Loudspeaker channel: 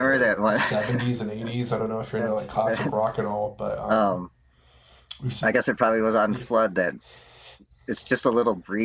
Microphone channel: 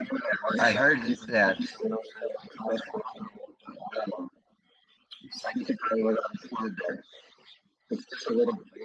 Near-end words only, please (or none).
I heard that